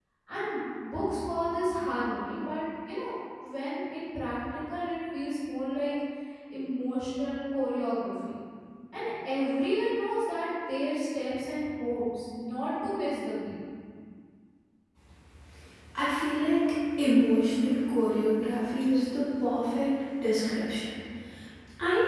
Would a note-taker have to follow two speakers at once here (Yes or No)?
No